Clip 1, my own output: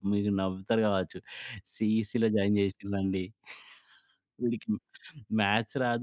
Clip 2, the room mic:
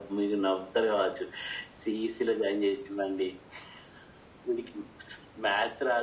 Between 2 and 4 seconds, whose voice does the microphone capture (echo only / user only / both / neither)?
echo only